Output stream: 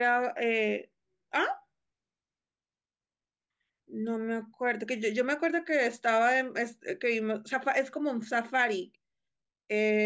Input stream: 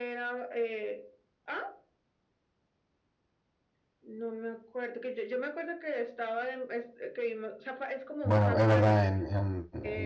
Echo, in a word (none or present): present